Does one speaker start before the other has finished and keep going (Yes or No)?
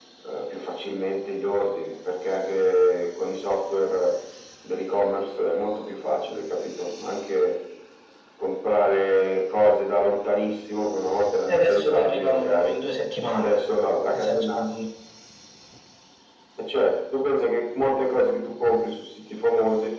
Yes